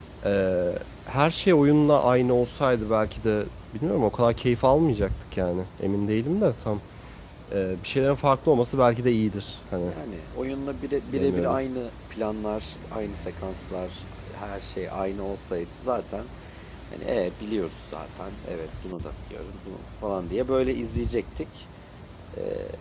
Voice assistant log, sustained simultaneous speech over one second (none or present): none